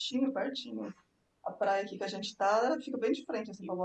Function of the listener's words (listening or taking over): taking over